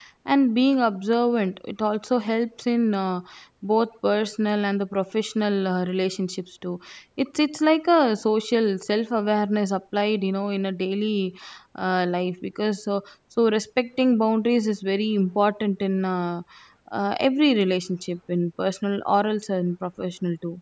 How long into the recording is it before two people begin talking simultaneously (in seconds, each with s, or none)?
none